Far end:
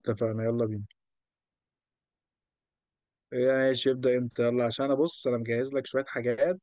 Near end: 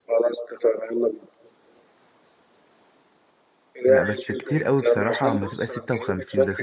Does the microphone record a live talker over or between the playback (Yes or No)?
Yes